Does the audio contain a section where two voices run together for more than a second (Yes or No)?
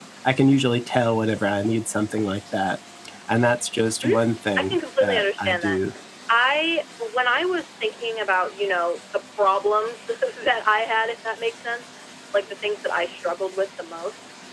Yes